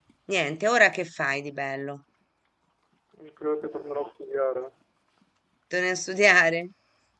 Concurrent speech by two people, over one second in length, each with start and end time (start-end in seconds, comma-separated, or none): none